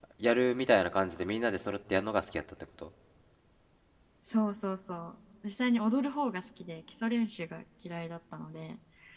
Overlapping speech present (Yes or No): No